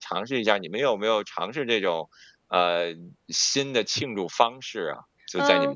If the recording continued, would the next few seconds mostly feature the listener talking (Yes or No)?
Yes